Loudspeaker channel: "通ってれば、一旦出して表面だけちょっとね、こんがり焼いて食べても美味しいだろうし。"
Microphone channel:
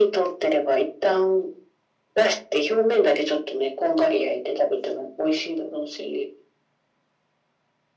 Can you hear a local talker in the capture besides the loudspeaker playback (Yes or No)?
No